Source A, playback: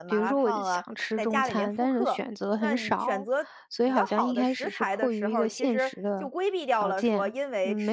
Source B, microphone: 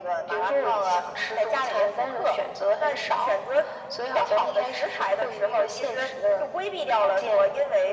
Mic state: echo only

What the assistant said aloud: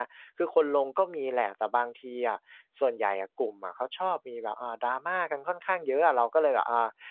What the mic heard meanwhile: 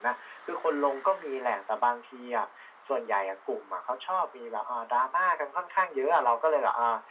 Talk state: echo only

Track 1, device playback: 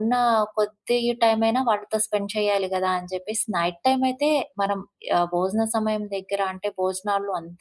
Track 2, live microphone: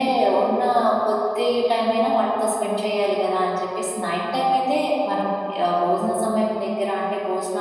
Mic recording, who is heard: echo only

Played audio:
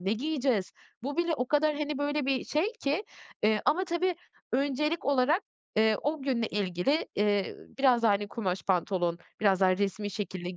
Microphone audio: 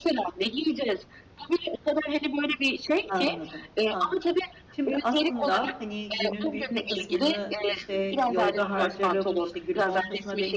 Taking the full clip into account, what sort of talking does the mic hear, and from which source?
both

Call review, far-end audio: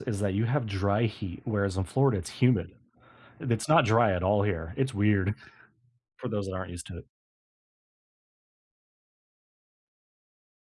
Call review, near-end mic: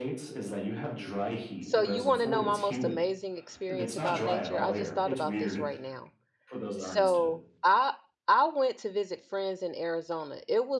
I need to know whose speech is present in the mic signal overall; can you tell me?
both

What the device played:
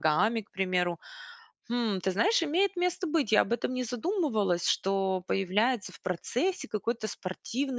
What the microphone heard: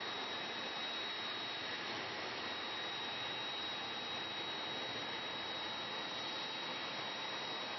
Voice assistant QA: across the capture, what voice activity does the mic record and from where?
neither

